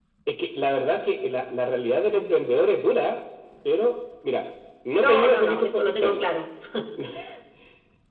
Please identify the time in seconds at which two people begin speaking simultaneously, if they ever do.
5.0 s

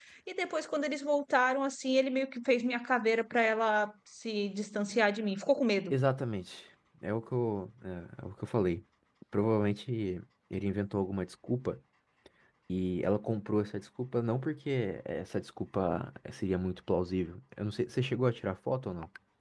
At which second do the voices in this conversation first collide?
none

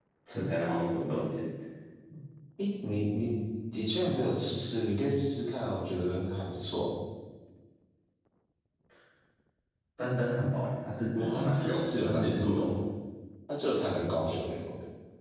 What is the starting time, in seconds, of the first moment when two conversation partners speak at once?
11.1 s

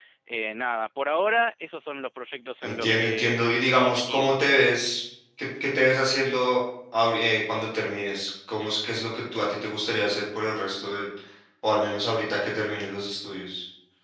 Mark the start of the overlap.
2.6 s

